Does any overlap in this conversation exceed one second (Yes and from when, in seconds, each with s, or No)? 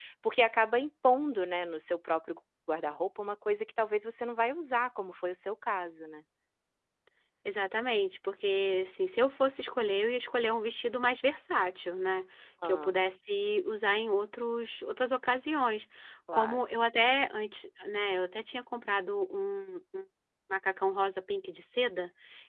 No